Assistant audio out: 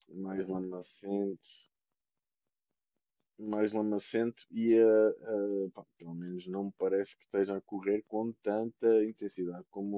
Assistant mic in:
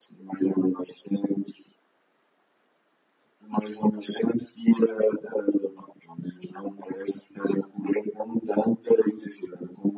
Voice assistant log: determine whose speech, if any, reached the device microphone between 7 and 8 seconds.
echo only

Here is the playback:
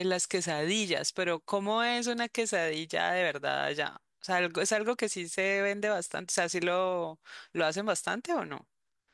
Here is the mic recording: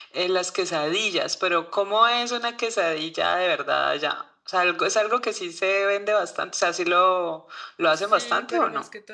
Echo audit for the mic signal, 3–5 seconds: echo only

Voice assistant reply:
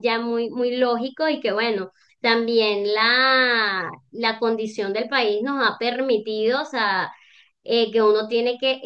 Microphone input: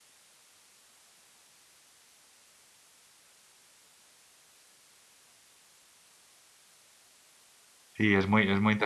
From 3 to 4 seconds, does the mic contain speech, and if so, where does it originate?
neither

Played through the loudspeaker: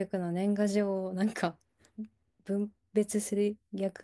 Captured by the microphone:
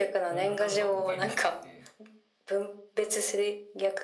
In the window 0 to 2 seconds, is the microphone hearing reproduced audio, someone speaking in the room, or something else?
both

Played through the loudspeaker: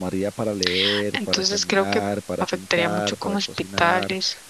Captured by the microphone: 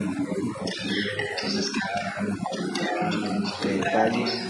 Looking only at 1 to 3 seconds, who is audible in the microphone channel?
echo only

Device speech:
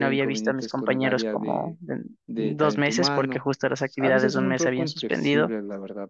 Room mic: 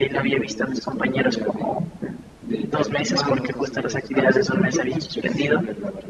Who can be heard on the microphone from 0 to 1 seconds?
echo only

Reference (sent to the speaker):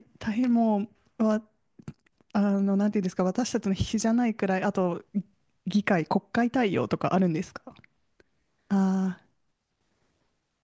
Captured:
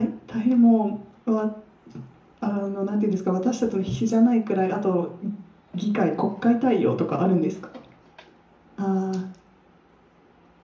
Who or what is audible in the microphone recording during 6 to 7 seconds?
echo only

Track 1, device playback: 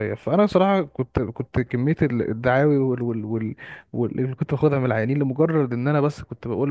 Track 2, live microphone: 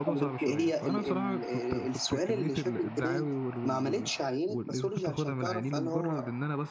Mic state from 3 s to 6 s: both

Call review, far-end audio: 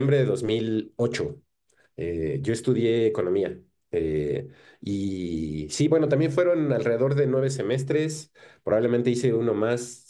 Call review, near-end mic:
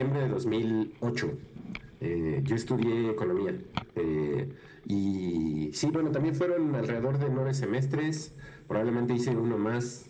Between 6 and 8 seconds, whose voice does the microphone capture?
echo only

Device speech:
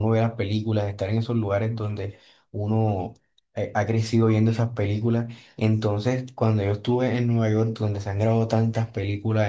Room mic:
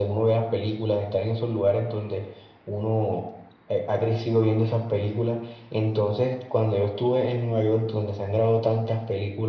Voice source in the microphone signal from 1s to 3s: echo only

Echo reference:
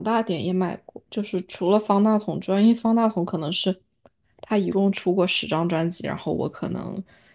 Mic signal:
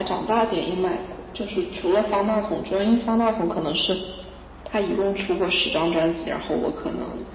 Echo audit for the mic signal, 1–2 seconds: echo only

